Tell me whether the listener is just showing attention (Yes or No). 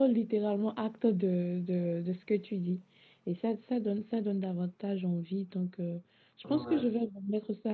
Yes